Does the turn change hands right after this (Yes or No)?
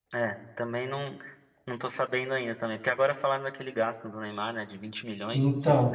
Yes